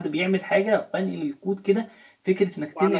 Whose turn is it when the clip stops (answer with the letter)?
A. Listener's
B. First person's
B